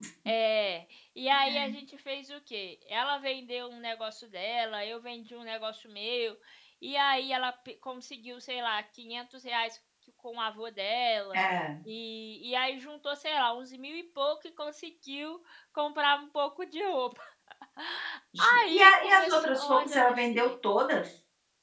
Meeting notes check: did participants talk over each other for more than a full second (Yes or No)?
Yes